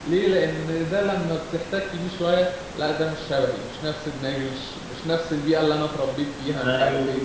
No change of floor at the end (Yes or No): No